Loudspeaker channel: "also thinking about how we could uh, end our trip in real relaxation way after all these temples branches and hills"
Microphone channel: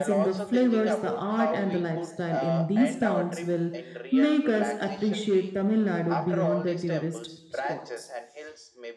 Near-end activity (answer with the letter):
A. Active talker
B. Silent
A